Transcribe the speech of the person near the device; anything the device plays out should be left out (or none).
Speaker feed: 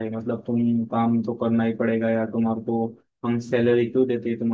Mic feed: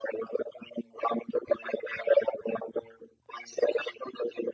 none